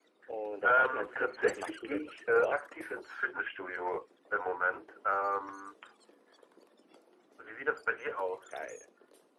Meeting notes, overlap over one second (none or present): present